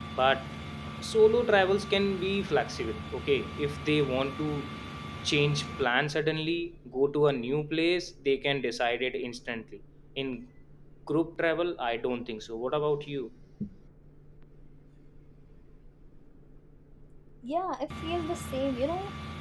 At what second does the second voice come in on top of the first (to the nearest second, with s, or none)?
none